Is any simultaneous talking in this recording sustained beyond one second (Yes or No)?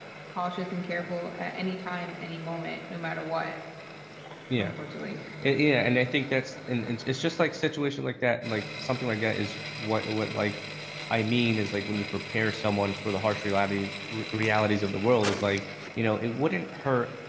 No